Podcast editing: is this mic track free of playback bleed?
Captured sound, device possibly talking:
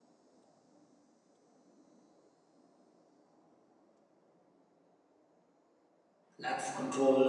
Yes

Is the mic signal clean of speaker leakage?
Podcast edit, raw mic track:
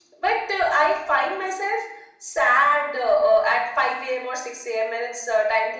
No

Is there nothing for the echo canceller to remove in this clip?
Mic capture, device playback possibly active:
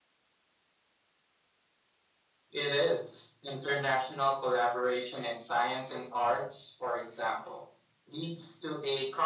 No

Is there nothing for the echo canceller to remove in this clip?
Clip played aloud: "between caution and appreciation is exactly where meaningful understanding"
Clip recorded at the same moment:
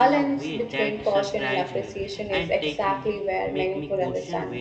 No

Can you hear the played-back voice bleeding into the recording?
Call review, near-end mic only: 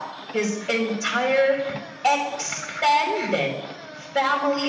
Yes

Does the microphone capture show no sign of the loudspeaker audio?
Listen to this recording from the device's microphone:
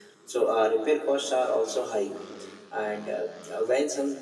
No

